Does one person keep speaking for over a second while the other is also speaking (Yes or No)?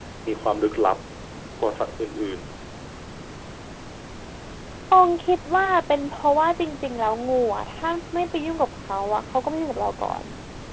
No